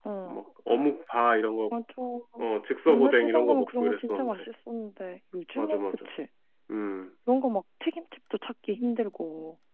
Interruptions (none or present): present